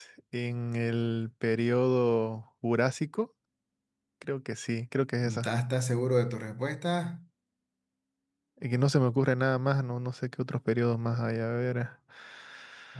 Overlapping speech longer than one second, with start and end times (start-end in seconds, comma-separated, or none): none